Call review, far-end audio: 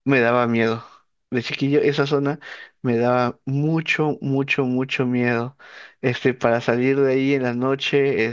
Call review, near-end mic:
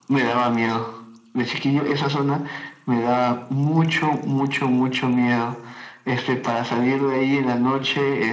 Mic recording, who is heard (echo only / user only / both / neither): echo only